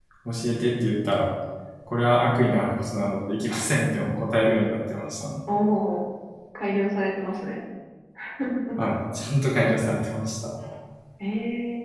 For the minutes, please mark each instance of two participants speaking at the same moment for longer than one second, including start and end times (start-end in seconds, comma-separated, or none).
none